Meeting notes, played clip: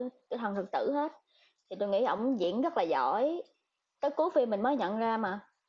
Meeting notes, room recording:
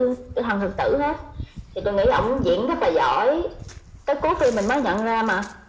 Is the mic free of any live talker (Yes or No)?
Yes